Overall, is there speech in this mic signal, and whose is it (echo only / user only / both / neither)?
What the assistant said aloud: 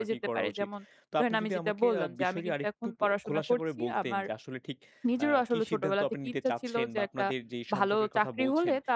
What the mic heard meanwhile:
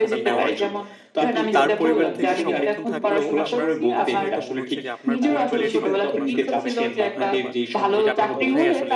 both